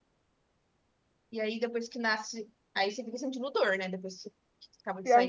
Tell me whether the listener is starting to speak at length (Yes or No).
Yes